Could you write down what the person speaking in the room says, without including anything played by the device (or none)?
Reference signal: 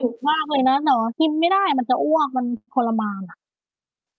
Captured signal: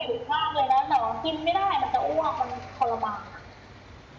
none